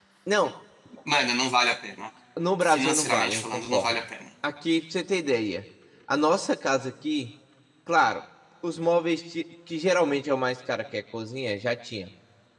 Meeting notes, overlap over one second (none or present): present